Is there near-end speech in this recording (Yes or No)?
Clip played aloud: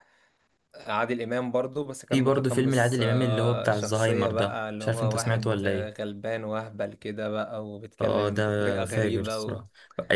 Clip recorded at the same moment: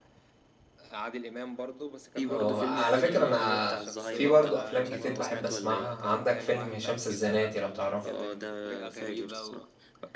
Yes